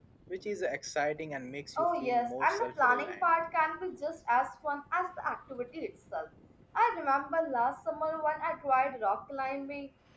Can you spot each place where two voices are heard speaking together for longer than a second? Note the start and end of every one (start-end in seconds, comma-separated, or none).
1.8-3.3